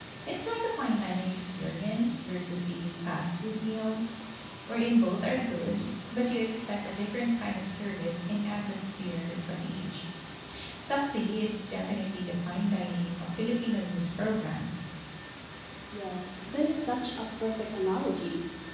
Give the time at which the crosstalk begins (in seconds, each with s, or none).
none